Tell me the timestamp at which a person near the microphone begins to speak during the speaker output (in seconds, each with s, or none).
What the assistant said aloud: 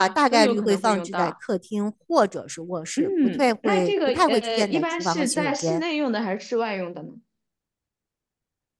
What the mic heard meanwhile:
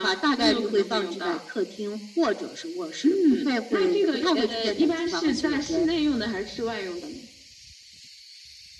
none